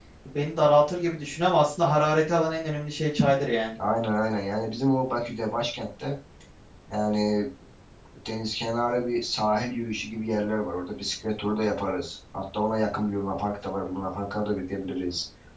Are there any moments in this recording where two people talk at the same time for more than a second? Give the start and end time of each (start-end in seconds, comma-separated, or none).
none